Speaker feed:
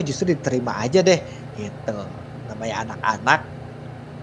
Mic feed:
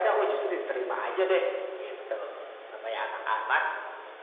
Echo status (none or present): present